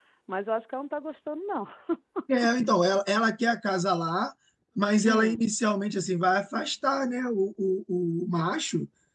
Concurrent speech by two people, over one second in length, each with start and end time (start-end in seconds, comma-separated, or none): none